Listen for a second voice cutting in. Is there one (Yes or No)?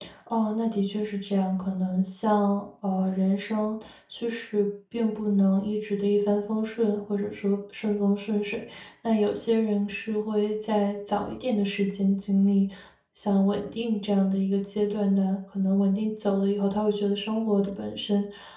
No